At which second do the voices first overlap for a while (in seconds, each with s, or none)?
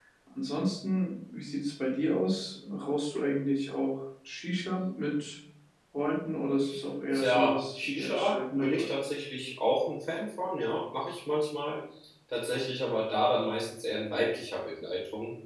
7.1 s